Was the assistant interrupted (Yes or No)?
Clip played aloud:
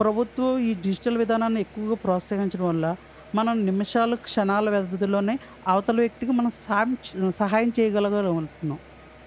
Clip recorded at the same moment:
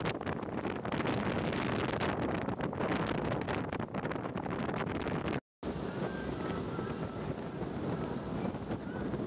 No